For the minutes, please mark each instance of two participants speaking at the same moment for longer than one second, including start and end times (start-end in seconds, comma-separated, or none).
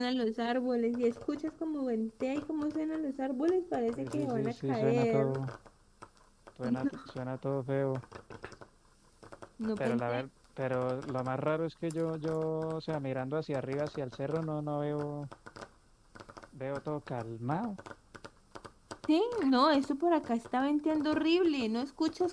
4.0-5.3